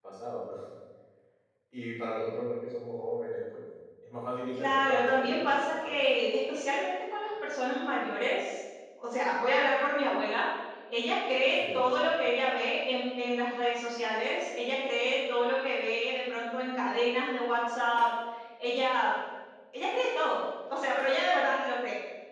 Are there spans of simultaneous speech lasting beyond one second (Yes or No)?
Yes